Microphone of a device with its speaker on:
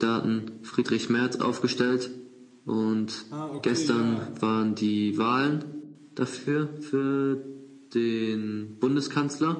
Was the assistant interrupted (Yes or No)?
Yes